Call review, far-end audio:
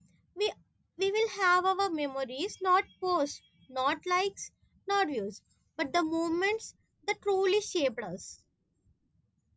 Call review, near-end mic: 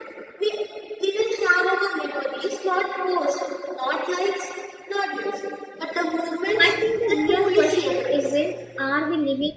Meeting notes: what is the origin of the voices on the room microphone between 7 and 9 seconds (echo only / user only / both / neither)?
both